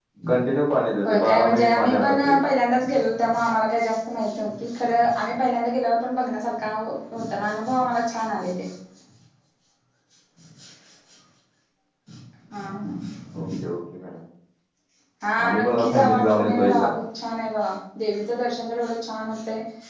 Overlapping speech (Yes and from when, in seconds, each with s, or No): Yes, from 1.0 s